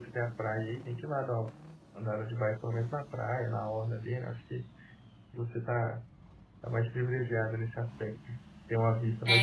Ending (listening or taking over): taking over